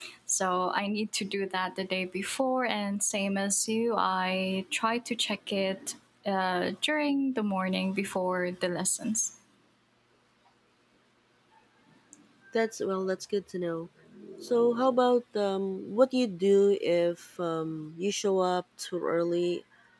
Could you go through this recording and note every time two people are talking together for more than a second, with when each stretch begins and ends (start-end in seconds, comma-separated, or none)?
none